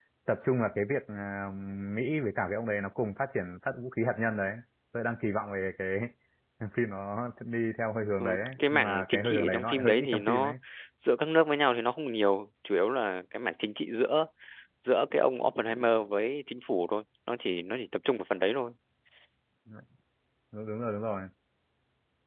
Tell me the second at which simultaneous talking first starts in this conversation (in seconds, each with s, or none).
8.2 s